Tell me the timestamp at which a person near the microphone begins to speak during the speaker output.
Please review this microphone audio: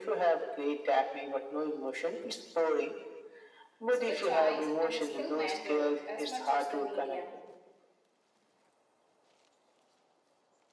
3.9 s

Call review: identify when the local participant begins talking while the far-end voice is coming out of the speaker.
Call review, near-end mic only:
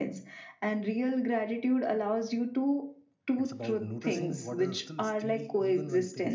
3.3 s

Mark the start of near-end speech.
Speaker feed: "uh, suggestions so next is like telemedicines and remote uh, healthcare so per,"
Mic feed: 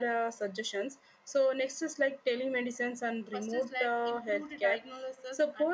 3.3 s

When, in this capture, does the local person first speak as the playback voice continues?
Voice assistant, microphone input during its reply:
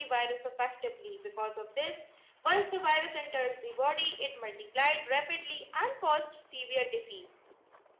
none

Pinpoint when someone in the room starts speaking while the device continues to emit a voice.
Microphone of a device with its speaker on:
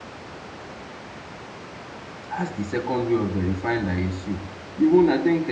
2.3 s

